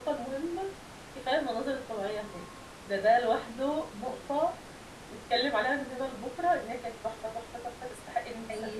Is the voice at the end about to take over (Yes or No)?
Yes